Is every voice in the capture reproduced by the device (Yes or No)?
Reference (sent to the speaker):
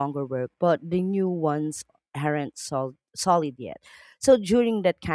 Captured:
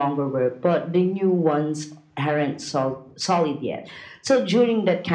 Yes